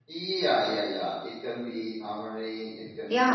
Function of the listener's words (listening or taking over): taking over